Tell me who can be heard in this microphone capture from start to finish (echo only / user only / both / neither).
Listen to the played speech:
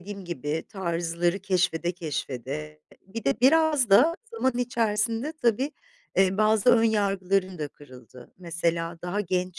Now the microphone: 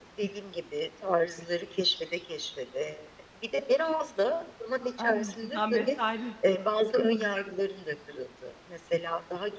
both